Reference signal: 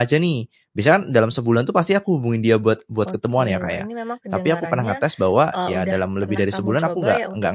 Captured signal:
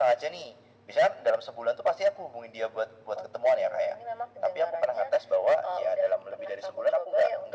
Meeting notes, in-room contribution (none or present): none